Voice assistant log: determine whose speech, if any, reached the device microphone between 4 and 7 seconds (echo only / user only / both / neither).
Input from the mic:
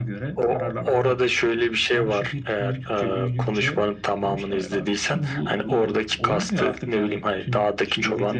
echo only